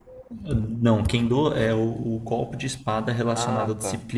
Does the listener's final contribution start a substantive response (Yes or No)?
No